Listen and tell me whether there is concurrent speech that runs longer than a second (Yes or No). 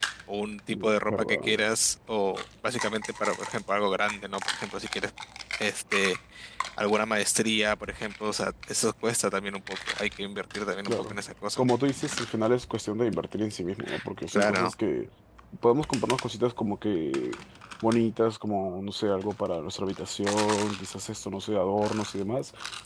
No